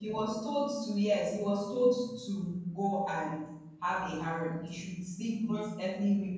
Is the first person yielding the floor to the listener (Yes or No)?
No